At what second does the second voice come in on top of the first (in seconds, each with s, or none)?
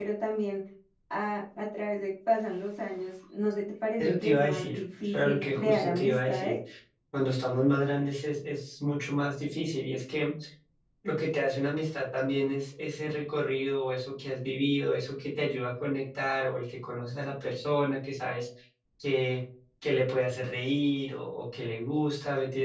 4.0 s